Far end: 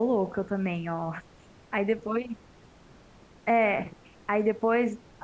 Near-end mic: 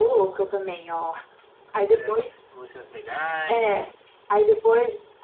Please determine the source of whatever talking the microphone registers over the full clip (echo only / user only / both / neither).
both